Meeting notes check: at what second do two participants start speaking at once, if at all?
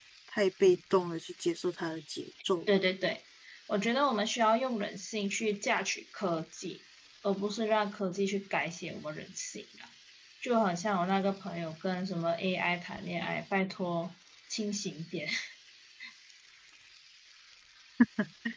none

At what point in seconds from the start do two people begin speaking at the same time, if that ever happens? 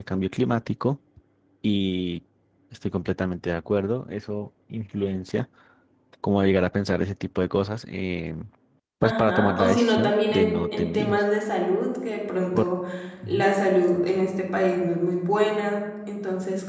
9.0 s

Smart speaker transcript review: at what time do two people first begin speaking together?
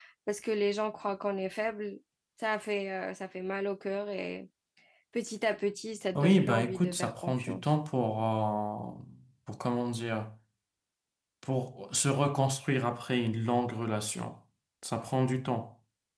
6.2 s

